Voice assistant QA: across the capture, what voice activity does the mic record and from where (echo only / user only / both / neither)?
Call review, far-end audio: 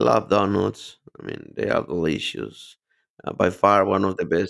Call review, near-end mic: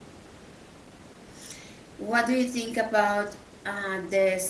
user only